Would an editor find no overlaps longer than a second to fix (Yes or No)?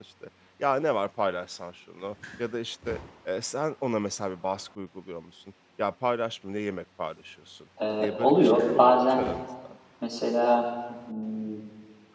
No